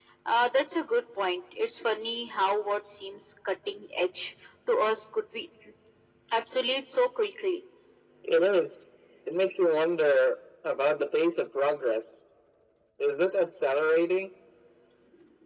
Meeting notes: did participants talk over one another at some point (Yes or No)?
No